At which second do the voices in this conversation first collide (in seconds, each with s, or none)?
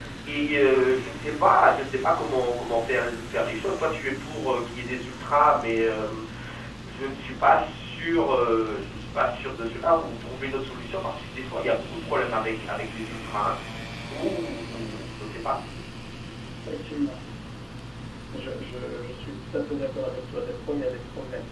none